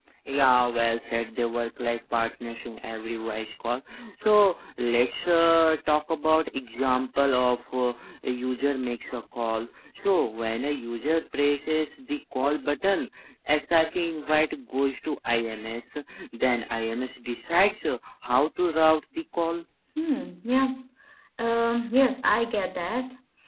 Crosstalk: none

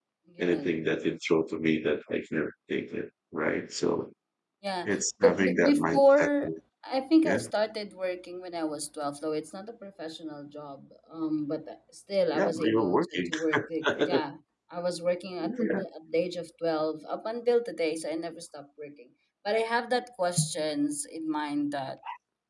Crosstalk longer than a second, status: present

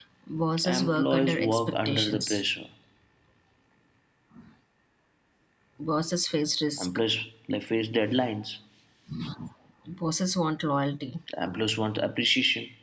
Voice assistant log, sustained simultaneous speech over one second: present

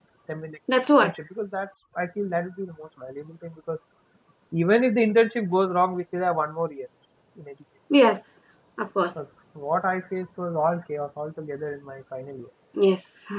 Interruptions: none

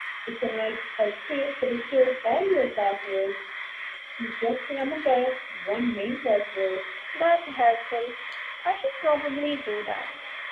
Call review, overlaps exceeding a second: none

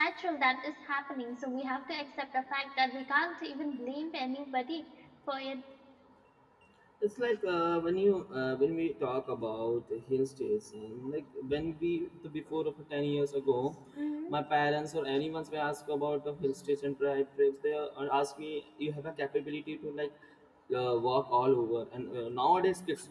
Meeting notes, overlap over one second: none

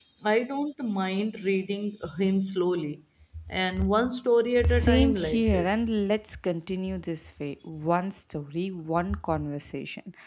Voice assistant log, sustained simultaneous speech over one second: present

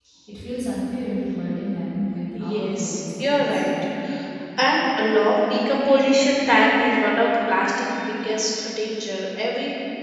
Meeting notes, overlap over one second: present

